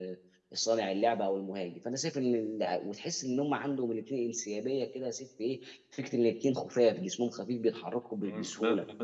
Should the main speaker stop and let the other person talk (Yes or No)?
Yes